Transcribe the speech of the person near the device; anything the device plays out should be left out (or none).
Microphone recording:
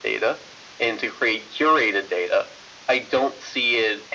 none